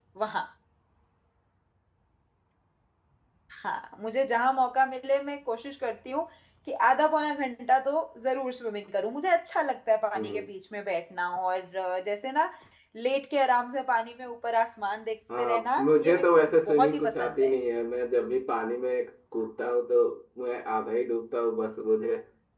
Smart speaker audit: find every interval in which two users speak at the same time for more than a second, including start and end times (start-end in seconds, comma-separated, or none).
15.4-17.5